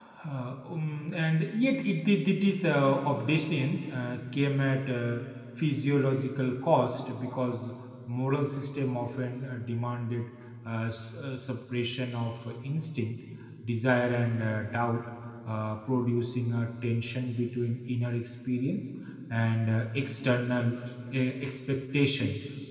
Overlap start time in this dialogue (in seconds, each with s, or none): none